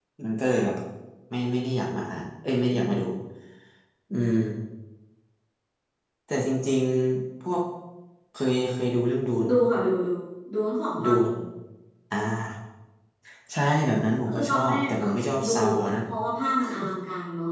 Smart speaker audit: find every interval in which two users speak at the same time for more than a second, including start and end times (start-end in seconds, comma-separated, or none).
14.3-16.0